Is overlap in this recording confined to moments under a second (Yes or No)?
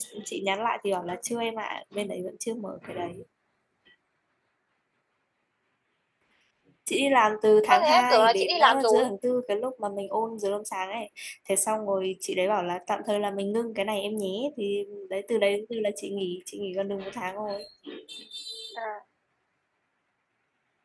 No